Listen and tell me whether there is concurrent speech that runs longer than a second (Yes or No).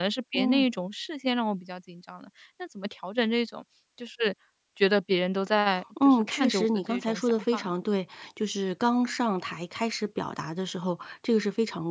Yes